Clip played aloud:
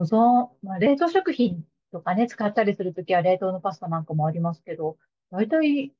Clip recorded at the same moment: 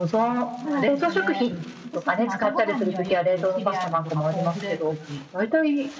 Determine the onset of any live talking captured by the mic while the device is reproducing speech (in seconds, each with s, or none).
0.6 s